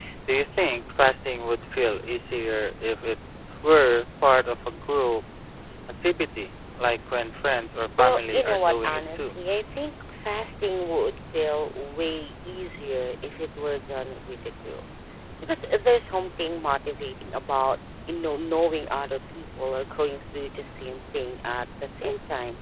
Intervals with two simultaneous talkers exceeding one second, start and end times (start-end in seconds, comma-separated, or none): 8.0-9.4